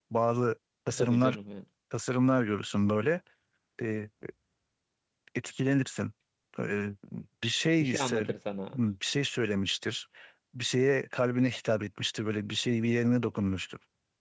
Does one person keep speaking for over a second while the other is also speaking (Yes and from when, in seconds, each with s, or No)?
No